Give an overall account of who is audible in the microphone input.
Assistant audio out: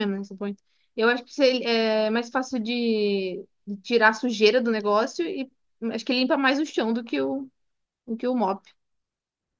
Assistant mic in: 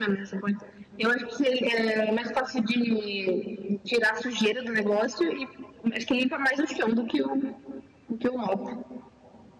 echo only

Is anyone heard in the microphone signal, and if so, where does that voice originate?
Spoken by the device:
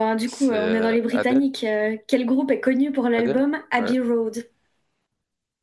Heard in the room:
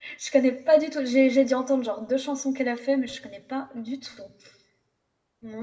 user only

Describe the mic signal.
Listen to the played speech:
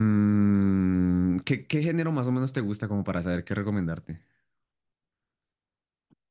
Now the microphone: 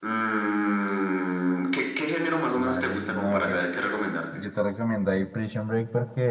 both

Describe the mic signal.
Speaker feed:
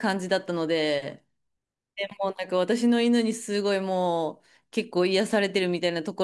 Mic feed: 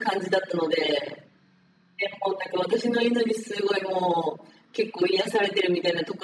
echo only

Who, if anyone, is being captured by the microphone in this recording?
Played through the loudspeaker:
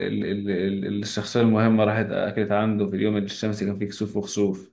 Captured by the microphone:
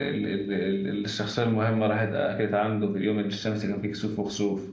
echo only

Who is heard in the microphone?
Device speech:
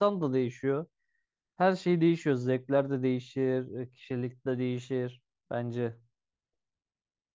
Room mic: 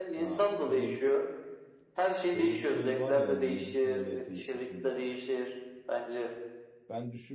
both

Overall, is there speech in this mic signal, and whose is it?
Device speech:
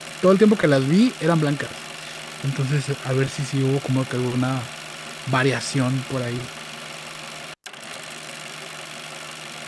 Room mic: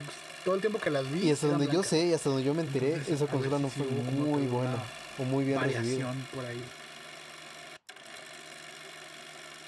both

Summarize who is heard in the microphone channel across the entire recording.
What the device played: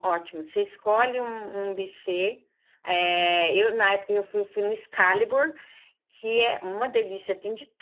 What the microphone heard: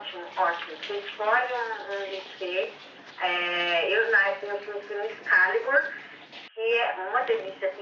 echo only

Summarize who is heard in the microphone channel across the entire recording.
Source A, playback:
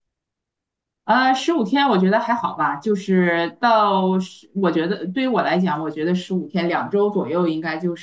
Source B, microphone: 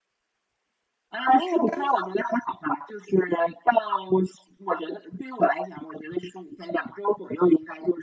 both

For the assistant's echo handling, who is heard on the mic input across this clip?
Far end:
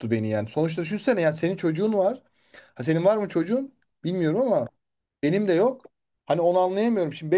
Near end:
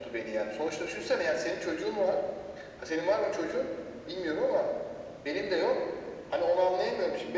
echo only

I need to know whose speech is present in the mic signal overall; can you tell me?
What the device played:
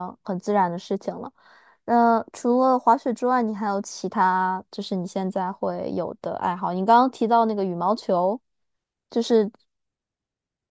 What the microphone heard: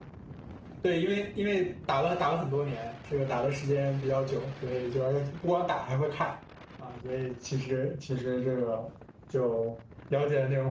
user only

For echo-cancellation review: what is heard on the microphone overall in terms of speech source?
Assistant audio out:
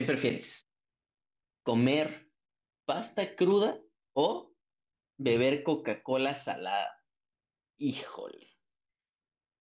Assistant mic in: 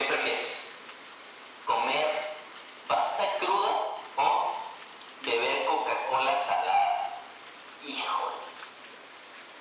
echo only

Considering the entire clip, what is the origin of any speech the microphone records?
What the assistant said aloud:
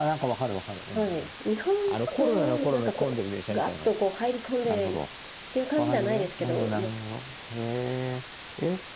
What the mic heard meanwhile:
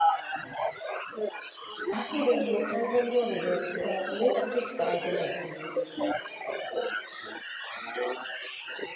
both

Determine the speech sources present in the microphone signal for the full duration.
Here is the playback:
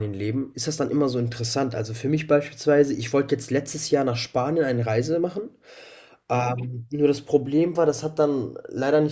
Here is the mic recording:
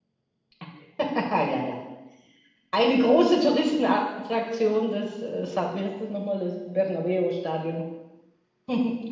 user only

